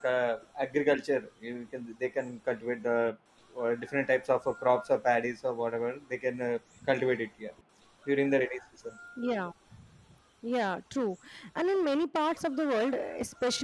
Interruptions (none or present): none